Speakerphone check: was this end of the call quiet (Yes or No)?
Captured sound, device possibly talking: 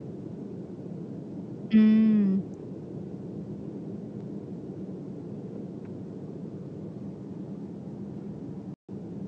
No